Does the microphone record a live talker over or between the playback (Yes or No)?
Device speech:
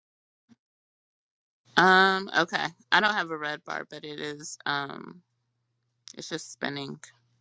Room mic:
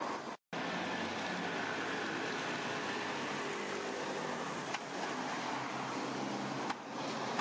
No